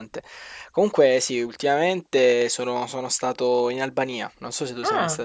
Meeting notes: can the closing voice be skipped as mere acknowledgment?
No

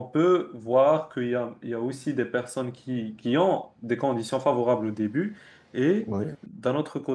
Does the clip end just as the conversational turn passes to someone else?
No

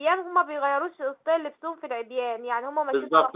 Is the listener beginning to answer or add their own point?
Yes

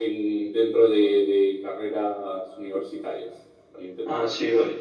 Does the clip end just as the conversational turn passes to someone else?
Yes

